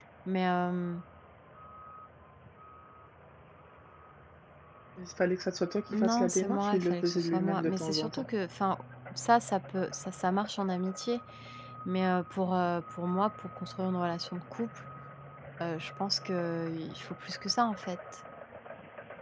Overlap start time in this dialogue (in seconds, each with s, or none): 5.9 s